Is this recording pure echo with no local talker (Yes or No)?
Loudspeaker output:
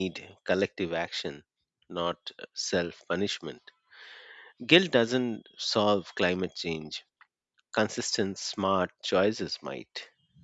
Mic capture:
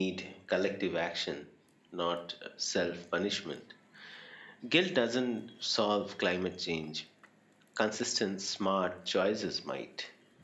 Yes